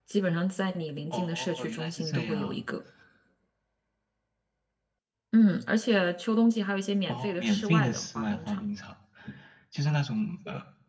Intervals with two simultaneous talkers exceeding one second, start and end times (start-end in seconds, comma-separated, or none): 1.1-2.6, 7.1-8.6